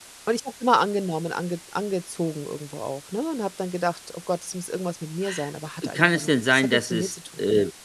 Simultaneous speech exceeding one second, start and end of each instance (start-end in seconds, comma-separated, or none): 5.9-7.1